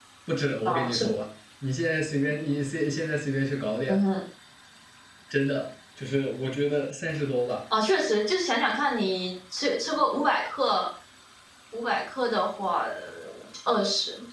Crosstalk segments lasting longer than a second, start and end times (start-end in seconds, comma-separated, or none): none